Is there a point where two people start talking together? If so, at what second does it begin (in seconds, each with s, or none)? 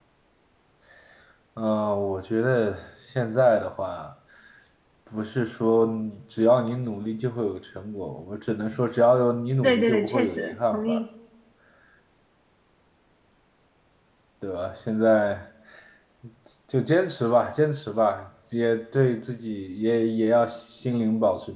9.6 s